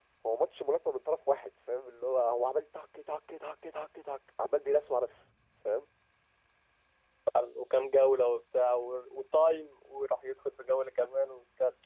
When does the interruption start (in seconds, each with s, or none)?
none